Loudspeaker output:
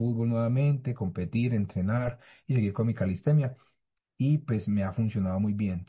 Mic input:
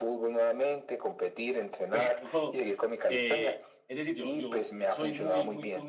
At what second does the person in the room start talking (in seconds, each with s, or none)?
1.9 s